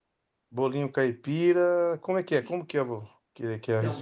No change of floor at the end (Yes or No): No